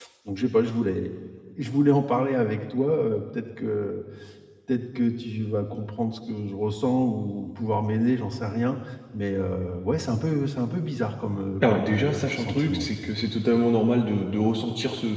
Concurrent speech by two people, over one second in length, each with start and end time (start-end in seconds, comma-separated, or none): 11.6-12.9